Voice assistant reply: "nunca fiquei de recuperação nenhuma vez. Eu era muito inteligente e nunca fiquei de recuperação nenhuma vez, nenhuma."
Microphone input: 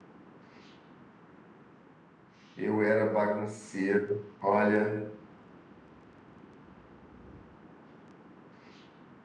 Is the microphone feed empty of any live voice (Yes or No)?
No